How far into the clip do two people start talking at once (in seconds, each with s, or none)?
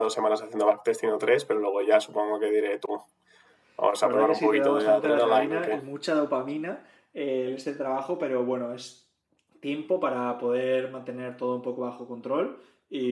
4.0 s